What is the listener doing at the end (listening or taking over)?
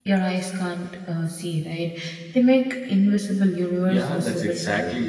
taking over